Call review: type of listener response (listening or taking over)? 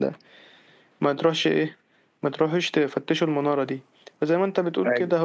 listening